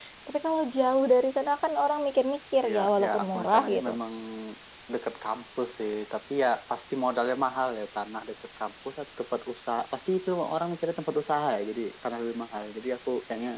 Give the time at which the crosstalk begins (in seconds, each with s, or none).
2.6 s